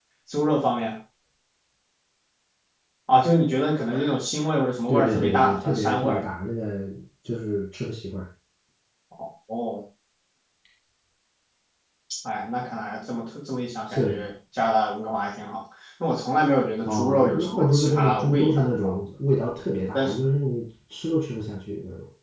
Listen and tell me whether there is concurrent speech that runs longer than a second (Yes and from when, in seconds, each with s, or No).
Yes, from 4.9 s